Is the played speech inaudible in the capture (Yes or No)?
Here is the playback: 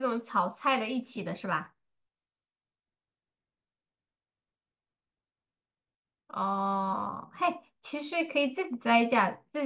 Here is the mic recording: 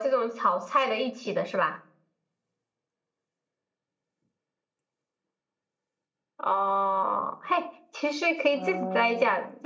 No